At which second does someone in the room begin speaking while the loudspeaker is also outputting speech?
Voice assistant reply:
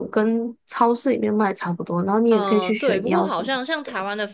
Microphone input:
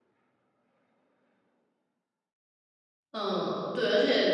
3.1 s

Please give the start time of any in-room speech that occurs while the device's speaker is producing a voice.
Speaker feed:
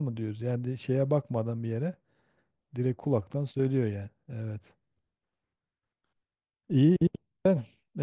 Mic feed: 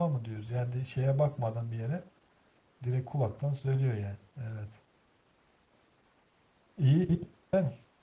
none

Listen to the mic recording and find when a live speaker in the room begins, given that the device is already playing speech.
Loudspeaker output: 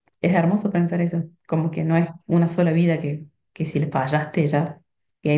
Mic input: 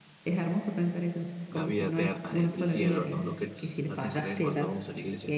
1.5 s

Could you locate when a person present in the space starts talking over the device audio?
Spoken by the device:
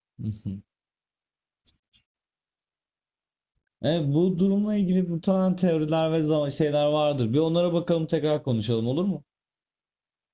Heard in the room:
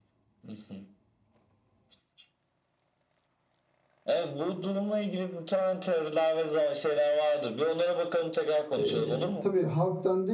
8.8 s

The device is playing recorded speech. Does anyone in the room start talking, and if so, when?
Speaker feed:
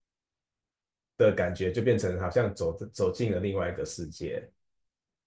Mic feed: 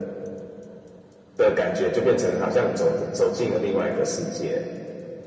none

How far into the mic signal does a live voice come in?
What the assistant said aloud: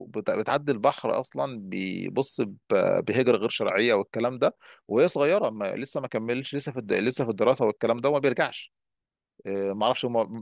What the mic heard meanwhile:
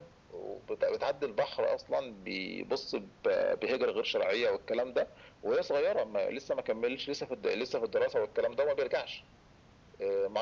none

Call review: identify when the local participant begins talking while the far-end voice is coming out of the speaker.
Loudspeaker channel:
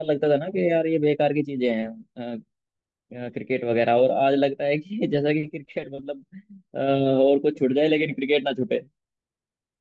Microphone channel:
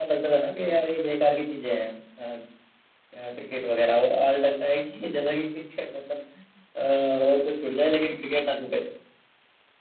none

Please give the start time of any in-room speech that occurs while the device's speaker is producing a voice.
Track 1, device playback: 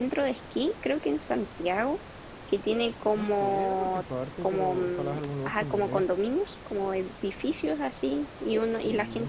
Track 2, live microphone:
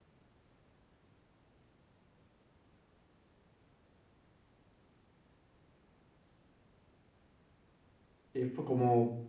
8.3 s

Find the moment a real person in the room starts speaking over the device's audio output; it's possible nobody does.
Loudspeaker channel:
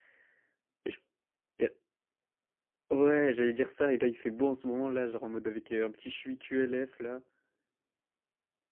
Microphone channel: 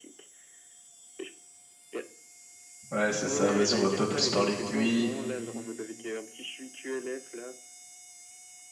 2.9 s

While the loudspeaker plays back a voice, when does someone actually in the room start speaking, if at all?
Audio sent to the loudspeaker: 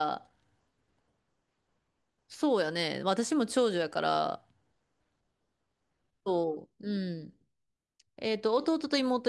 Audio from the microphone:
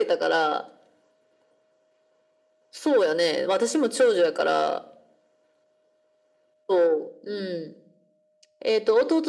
none

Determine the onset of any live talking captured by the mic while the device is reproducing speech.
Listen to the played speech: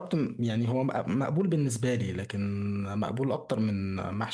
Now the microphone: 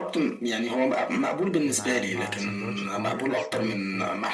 1.6 s

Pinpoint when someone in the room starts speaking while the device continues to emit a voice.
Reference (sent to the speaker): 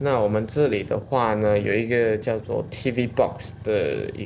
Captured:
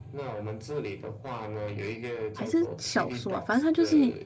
2.3 s

